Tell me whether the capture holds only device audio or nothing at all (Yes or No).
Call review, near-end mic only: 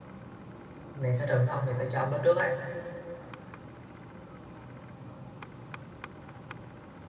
No